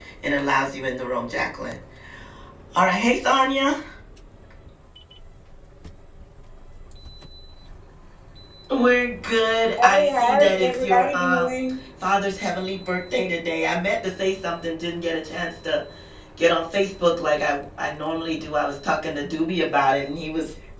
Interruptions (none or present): present